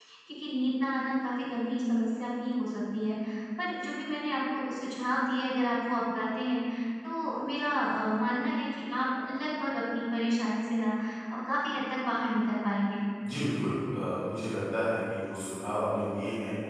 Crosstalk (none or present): none